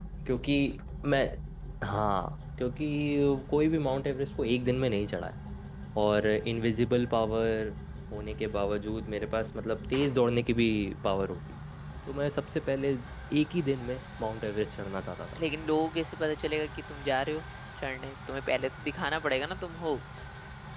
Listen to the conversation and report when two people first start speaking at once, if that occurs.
none

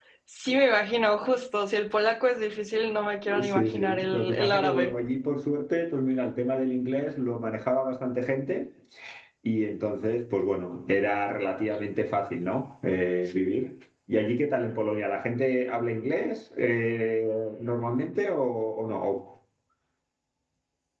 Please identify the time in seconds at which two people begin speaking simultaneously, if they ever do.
3.3 s

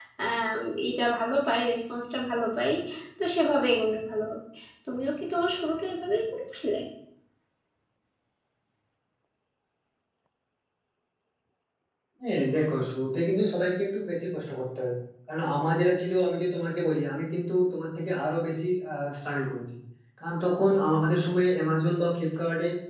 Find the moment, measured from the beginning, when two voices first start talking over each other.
none

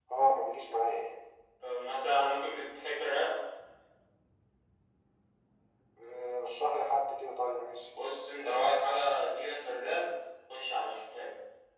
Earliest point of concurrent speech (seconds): none

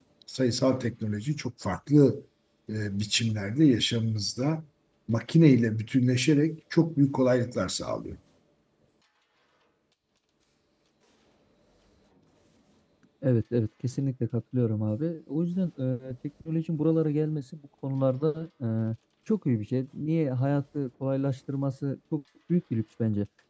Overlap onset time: none

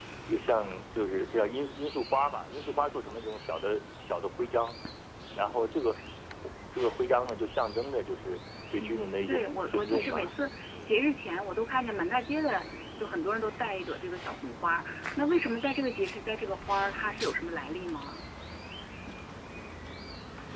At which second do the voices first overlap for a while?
8.8 s

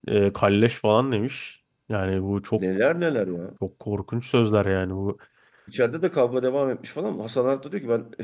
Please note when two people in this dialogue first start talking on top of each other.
none

